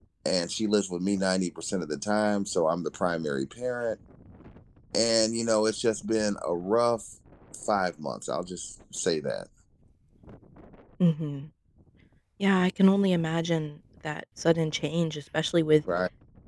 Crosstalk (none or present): none